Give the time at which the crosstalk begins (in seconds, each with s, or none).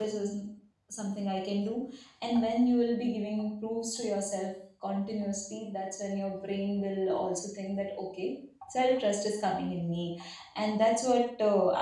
none